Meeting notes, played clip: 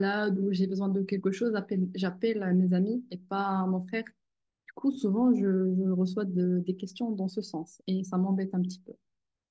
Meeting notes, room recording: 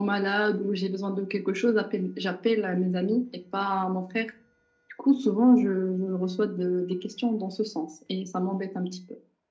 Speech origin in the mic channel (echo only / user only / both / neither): echo only